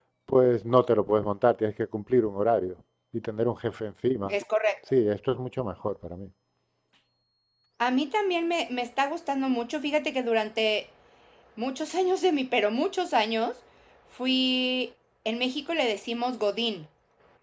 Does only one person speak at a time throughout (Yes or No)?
Yes